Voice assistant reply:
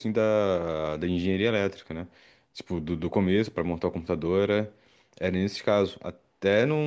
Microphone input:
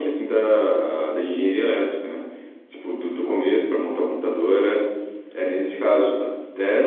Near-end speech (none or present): none